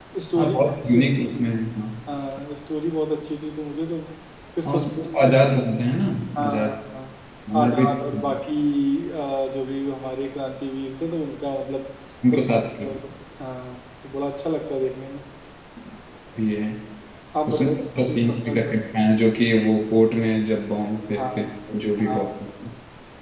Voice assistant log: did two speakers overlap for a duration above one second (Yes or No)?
Yes